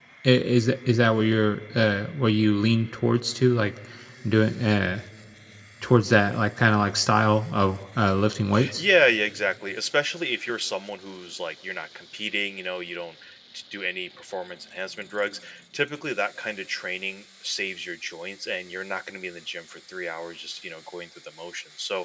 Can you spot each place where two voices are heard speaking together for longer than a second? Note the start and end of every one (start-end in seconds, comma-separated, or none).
none